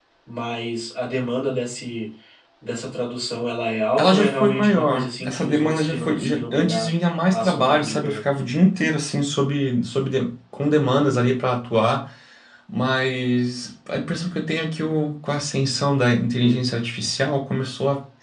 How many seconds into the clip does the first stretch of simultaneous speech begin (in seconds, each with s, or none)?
4.0 s